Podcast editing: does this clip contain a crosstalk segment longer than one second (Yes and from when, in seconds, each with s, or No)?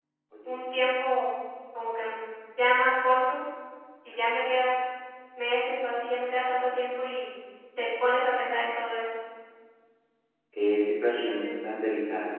No